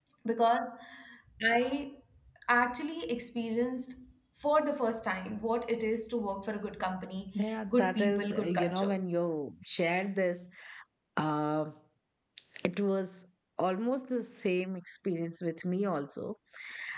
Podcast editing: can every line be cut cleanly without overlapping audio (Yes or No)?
No